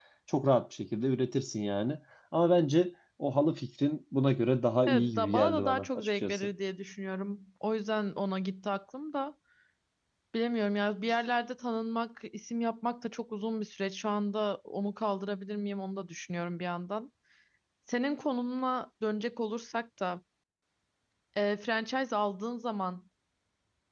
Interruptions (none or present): present